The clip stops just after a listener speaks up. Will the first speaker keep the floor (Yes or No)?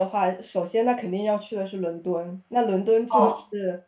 Yes